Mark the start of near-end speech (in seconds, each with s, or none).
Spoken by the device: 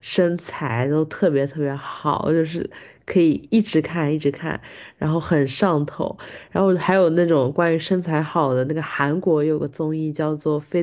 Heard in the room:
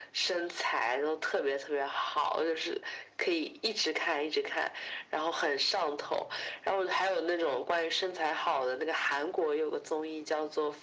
none